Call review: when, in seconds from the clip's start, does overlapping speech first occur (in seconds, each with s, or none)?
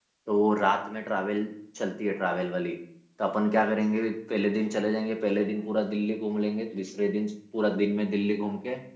none